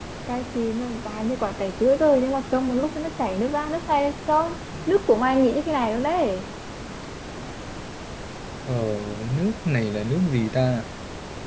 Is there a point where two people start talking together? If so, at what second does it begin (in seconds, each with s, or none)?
none